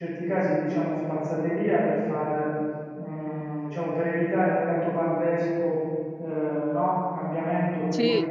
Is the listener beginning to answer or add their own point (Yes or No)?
No